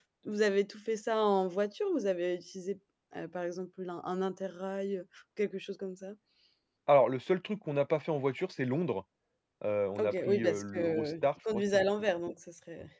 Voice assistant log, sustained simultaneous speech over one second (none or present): present